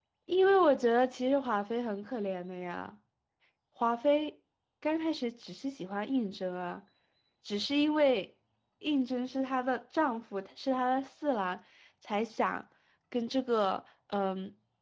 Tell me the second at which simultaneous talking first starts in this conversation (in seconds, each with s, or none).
none